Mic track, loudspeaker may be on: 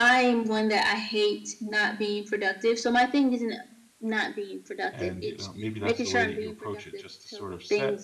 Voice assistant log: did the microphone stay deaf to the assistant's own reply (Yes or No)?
No